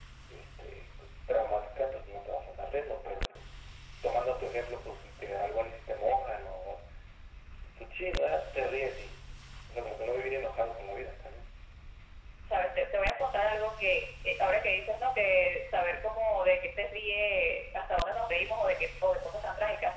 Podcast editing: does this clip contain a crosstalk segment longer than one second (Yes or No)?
No